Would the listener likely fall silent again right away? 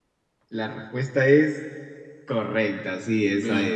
No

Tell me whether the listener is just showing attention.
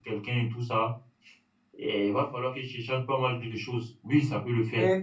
No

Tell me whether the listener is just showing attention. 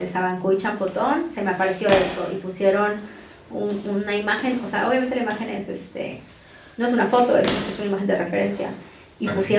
Yes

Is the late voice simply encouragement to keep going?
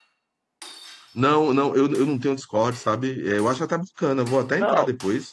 No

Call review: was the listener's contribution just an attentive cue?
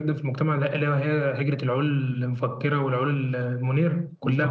No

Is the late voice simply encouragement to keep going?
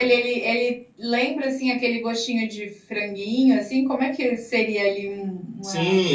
No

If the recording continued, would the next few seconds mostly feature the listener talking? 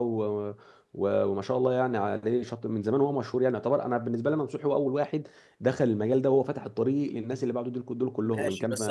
Yes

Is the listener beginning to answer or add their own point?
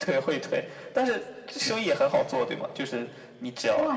Yes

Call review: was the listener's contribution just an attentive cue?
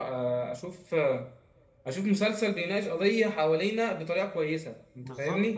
No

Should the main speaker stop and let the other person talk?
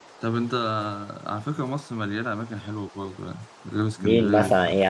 Yes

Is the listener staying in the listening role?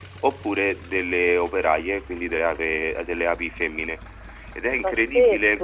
No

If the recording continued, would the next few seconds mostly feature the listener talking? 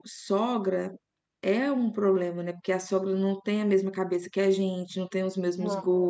No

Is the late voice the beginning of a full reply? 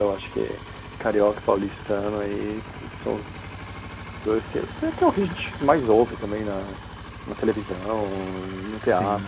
No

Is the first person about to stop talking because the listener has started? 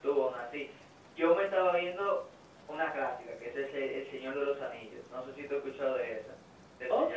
Yes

